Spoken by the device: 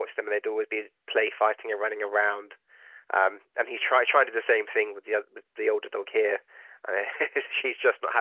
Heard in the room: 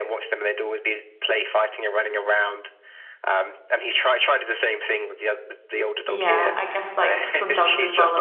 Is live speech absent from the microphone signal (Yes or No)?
No